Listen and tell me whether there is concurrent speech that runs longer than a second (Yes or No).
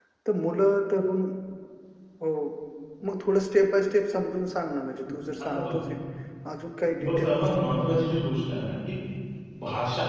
No